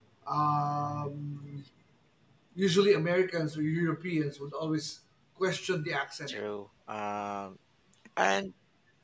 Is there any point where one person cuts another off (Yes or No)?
No